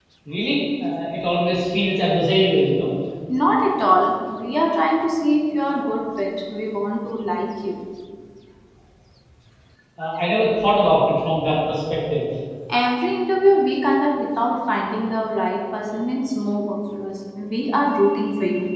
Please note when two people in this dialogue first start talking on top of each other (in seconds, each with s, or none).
none